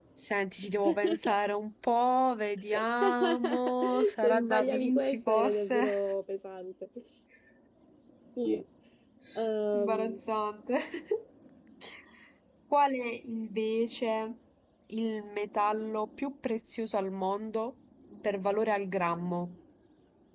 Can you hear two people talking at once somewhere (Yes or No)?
Yes